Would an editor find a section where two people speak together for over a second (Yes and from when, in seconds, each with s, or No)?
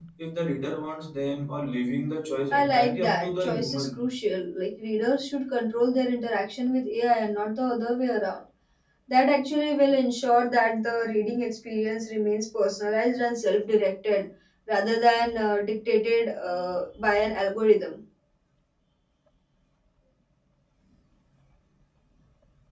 Yes, from 2.5 s